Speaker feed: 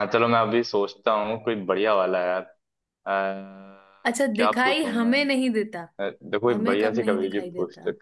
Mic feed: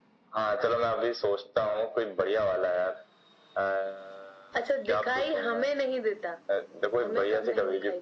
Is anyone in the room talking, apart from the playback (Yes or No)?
No